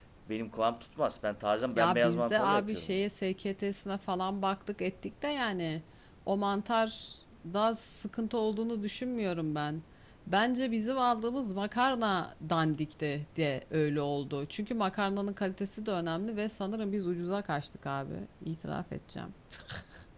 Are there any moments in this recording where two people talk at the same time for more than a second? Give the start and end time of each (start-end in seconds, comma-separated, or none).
1.7-3.0